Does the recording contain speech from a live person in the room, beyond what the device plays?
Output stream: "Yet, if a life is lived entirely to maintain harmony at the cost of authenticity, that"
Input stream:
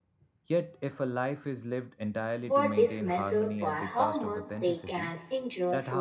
Yes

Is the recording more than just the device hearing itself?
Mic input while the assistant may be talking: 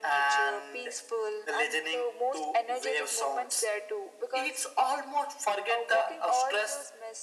No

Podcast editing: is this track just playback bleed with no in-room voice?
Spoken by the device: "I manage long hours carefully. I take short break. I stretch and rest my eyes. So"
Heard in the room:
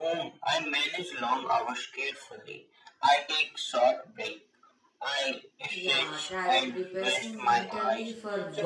No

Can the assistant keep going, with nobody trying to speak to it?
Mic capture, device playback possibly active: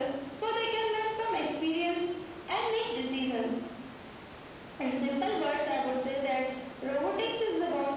Yes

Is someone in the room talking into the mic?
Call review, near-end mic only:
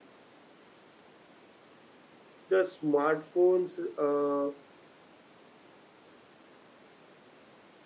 Yes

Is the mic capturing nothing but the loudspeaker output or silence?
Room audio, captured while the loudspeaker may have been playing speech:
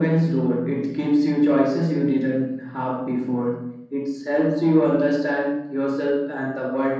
Yes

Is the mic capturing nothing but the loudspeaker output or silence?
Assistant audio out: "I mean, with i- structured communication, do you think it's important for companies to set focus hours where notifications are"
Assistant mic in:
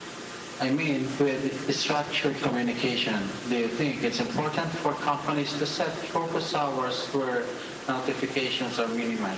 Yes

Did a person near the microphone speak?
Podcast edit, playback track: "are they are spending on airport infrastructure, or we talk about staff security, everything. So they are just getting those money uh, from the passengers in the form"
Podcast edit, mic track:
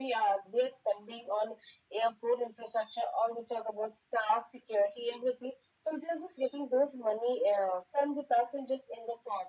No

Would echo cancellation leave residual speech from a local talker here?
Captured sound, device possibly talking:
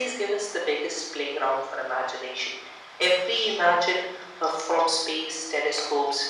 No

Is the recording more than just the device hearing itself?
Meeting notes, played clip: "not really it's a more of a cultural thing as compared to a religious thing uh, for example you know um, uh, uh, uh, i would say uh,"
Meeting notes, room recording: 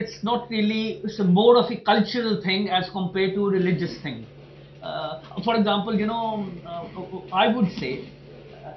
No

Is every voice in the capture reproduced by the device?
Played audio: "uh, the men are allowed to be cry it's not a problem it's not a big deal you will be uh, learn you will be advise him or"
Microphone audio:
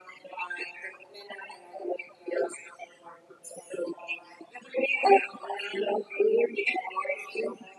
Yes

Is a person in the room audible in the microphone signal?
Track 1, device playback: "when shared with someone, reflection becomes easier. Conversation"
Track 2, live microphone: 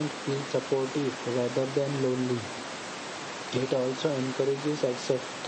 Yes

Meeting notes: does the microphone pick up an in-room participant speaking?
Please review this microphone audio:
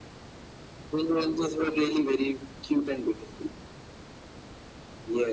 No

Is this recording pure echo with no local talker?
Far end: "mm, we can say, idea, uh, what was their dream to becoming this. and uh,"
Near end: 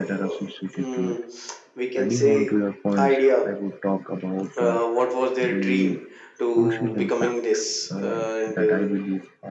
No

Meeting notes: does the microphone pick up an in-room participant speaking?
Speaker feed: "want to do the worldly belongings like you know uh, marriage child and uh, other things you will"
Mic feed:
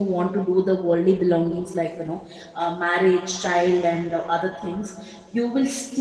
No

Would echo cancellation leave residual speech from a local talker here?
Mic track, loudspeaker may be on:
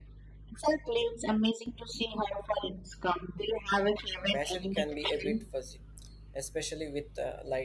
Yes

